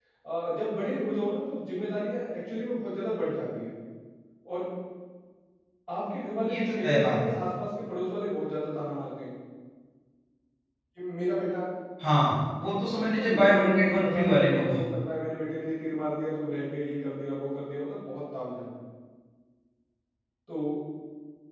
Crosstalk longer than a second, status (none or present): present